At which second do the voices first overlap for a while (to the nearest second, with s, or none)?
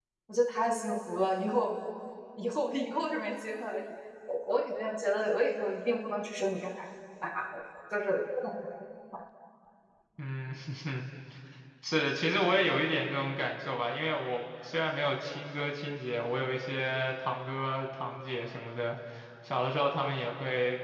none